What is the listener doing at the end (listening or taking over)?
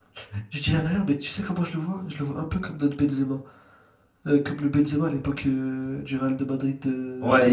taking over